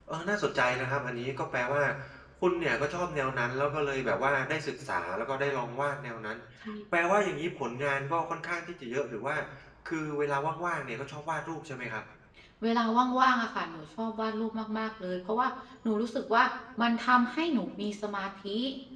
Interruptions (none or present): none